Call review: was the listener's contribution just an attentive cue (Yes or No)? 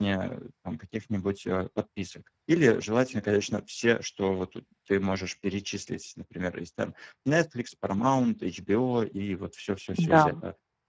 Yes